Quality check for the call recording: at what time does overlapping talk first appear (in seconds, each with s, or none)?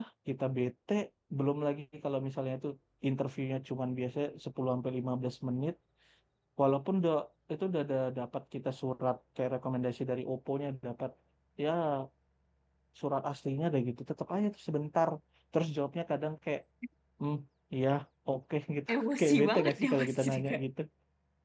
18.9 s